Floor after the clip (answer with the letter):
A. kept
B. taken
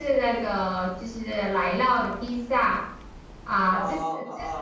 A